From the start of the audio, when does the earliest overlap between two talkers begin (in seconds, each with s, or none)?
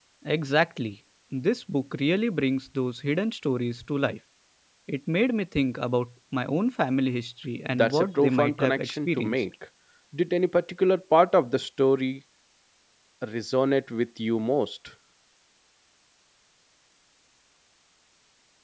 7.7 s